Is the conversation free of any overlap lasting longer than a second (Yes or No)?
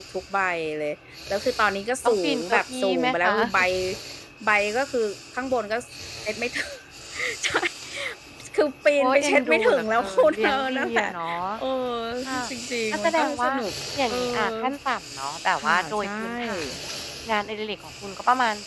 No